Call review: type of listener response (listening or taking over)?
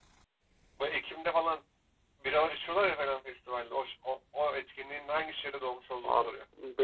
taking over